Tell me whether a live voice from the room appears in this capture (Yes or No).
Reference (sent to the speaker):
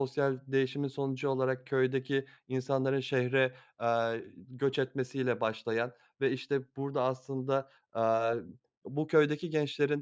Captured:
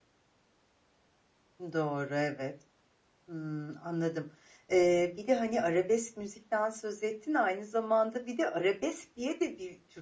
Yes